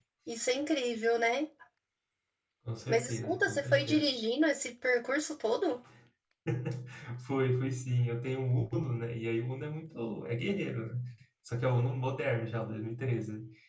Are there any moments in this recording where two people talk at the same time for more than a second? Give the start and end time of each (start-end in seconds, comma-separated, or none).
2.9-4.1